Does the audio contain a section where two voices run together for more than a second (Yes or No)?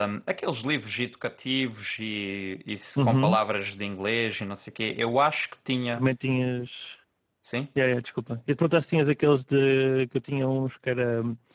No